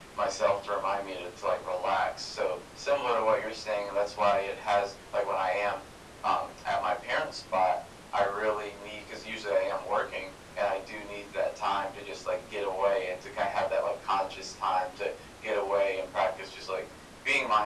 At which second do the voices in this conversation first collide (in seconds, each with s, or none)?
none